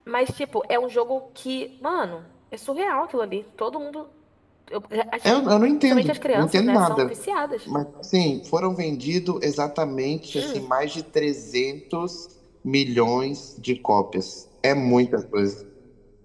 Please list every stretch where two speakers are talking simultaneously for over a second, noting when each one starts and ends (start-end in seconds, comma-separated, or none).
5.8-7.1